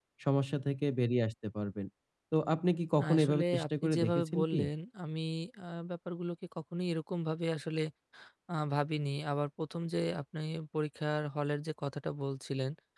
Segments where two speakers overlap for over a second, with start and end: 3.0-4.6

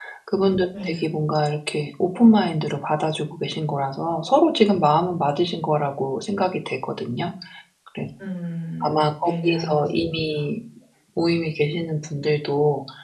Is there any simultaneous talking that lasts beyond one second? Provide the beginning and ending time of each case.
8.8-10.4

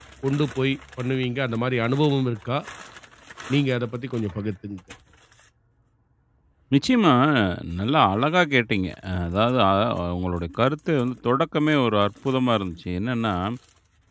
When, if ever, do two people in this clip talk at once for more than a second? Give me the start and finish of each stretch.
none

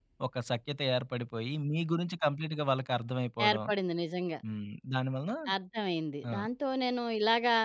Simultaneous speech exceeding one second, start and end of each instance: none

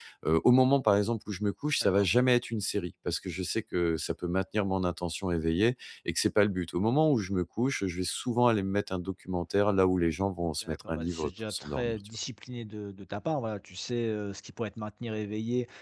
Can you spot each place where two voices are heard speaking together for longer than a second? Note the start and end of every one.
10.7-12.0

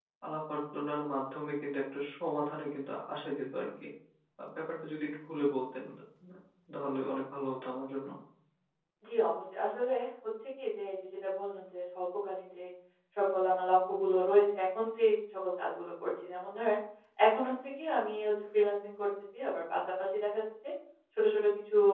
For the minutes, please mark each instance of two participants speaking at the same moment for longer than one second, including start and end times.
none

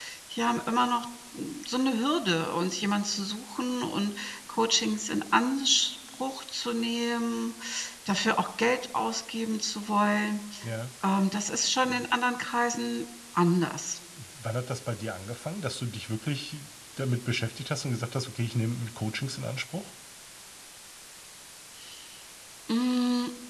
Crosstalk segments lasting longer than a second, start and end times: none

